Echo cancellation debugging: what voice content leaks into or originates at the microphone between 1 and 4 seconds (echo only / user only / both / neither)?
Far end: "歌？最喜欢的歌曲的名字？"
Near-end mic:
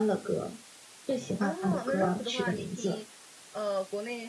both